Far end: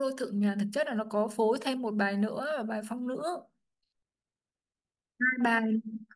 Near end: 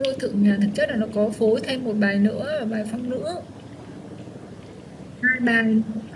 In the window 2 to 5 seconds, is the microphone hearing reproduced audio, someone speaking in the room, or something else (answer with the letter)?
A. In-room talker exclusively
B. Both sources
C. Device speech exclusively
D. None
C